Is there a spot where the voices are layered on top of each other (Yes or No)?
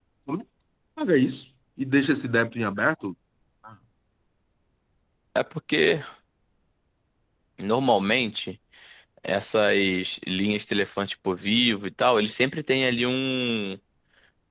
No